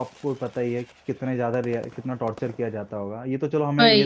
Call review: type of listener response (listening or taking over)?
listening